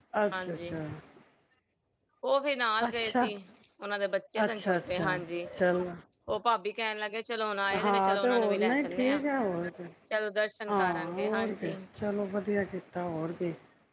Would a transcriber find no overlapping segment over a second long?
No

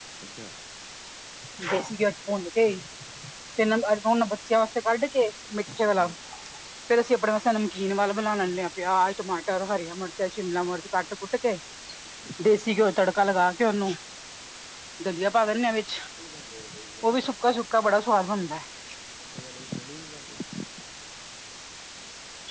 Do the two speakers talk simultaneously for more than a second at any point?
No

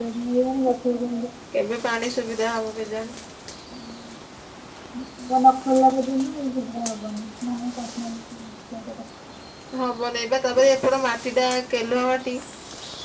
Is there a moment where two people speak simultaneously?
No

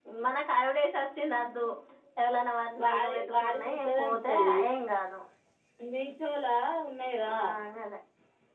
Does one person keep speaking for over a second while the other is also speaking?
Yes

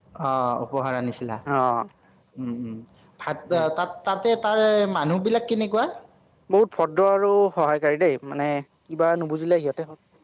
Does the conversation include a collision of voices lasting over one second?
No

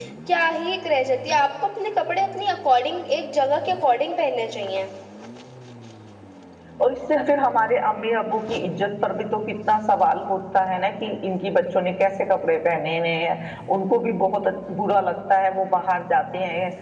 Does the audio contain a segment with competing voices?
No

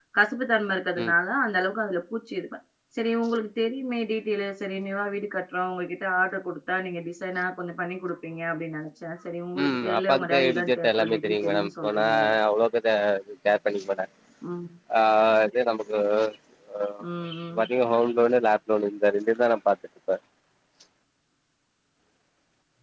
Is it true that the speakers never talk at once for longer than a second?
No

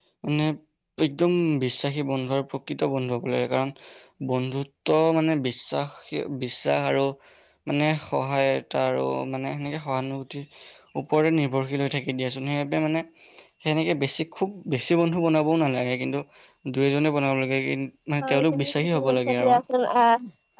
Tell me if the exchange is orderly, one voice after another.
No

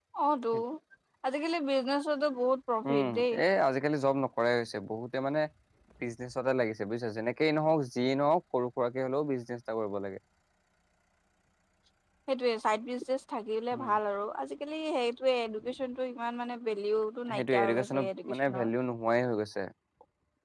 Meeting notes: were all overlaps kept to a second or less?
No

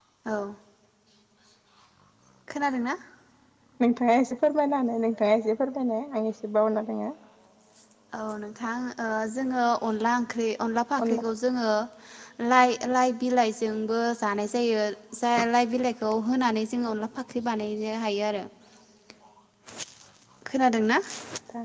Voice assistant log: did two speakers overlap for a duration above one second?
No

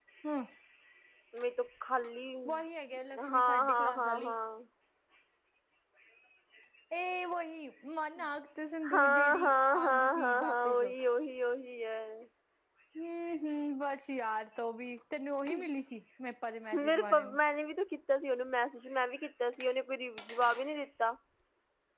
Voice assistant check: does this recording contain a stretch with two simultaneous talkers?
Yes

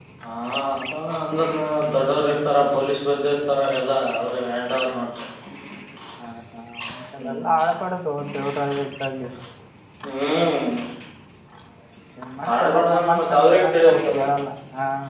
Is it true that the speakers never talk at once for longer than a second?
No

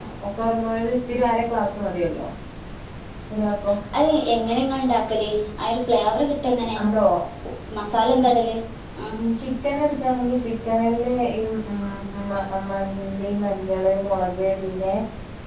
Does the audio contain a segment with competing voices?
No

